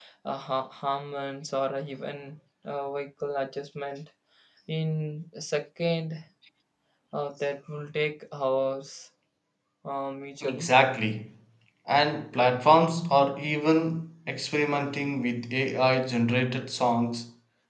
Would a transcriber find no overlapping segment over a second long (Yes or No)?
Yes